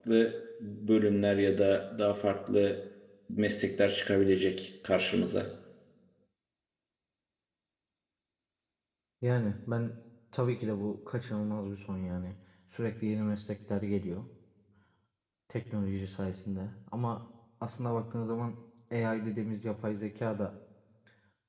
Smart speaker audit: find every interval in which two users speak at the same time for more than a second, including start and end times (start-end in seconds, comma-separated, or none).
none